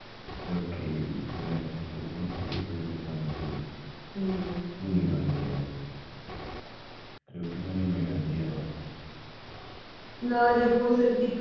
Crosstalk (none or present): none